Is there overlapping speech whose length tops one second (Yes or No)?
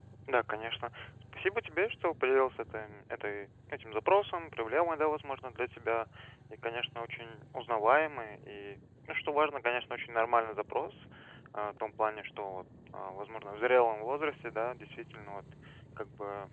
No